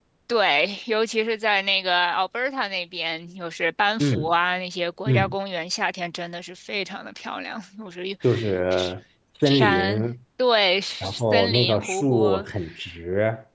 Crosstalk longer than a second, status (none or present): present